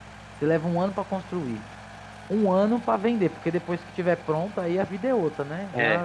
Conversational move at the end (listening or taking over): listening